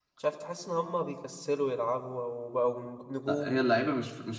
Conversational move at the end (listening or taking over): taking over